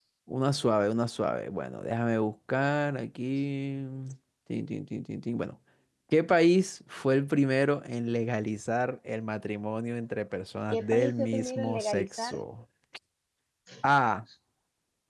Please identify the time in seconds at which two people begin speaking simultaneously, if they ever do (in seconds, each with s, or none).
10.7 s